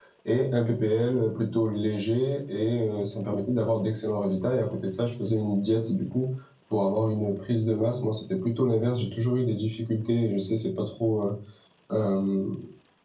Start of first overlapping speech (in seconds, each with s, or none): none